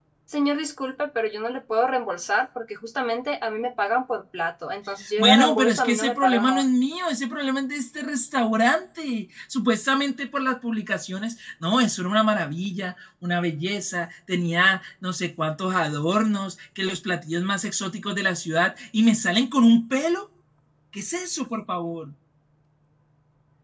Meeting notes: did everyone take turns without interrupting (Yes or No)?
No